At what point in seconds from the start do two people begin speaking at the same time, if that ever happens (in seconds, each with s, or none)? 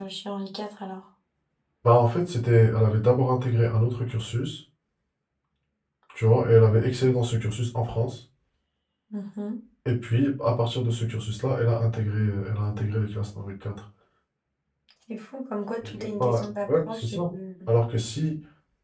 15.8 s